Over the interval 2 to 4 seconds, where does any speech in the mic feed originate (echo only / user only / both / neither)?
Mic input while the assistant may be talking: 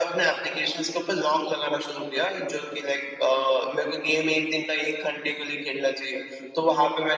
echo only